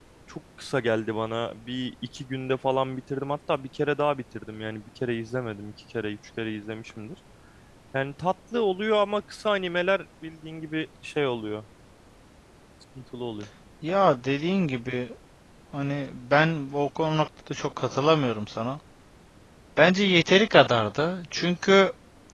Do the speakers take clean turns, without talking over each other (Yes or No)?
Yes